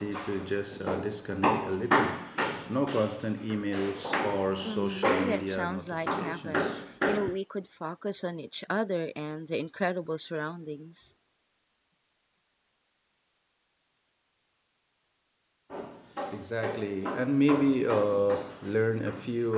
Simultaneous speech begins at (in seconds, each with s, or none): 4.7 s